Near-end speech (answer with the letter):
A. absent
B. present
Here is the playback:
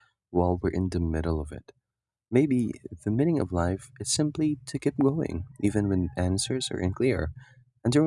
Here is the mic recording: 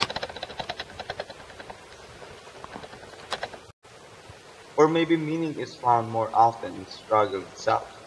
B